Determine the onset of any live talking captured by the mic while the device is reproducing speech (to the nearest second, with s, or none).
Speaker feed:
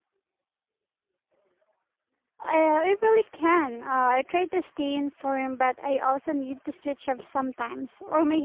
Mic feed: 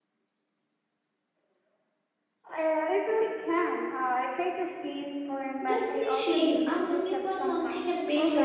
6 s